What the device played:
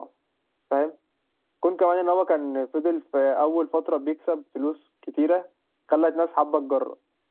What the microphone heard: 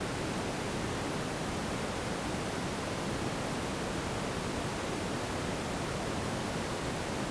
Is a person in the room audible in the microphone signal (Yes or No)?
No